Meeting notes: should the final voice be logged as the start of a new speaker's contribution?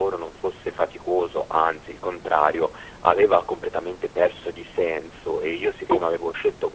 No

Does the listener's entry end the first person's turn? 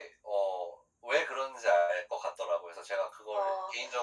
Yes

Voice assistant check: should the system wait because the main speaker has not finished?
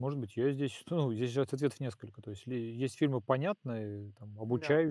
Yes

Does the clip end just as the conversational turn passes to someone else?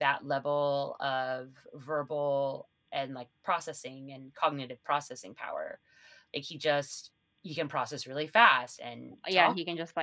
Yes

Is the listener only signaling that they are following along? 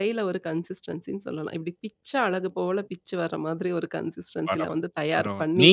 No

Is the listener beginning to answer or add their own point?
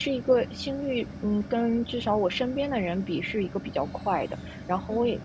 No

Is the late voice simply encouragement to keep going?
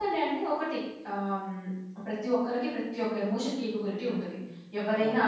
Yes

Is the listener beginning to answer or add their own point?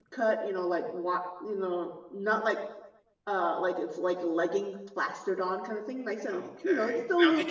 Yes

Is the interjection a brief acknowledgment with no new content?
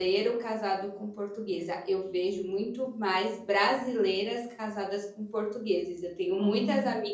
Yes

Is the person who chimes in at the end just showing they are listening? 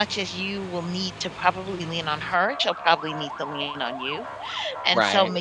Yes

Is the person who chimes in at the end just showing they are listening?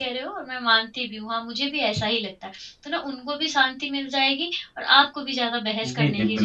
No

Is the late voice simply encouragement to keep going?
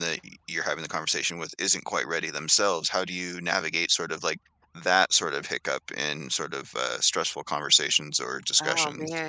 No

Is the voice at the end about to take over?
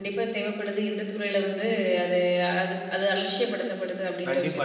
Yes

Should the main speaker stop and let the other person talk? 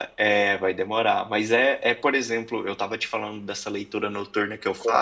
No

